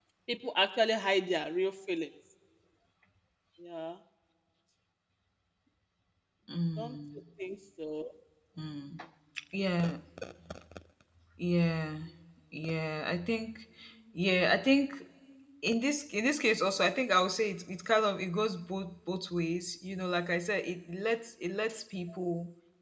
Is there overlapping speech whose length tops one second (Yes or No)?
No